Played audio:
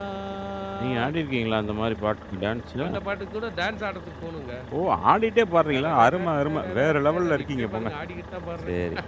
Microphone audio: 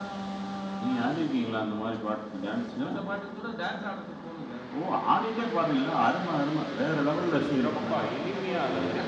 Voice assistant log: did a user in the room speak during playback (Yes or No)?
Yes